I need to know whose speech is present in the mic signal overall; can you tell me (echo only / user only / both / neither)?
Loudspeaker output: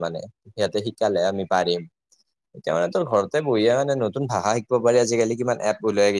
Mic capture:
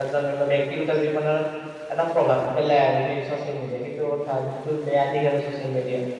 user only